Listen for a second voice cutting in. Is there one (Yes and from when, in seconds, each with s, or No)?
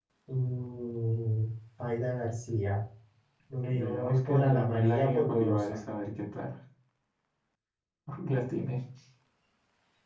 Yes, from 3.7 s